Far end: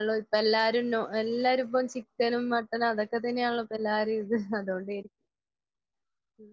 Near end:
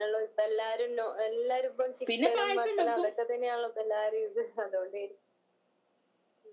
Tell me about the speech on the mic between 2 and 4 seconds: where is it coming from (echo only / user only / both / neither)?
both